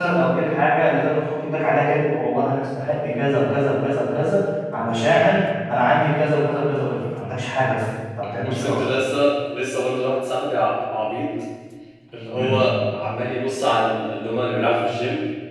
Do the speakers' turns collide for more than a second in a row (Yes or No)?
No